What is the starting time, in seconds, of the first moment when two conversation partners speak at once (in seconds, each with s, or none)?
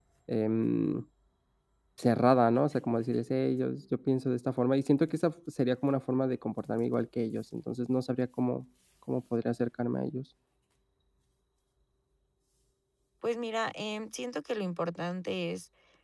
none